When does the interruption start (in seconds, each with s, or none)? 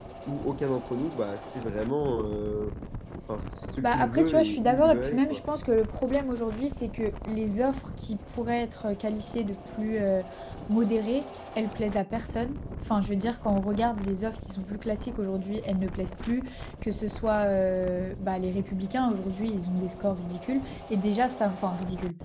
3.8 s